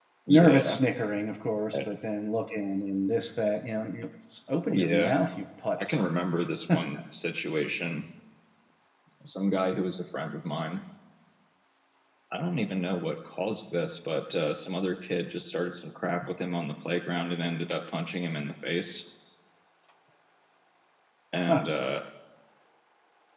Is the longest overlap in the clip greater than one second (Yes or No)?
No